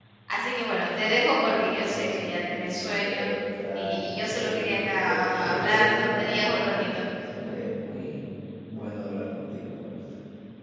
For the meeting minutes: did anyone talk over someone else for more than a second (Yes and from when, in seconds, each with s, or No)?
Yes, from 1.9 s